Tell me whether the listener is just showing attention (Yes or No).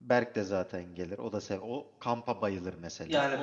No